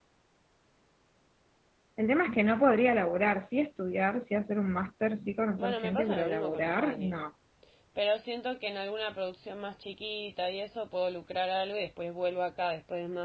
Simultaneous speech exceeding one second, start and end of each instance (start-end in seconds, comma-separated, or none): 5.6-7.2